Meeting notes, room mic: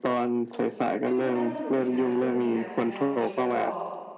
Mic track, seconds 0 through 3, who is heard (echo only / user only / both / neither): both